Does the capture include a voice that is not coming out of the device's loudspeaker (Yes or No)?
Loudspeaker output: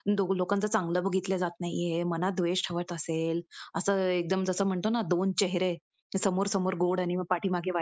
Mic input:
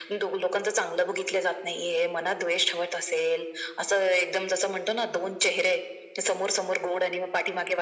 No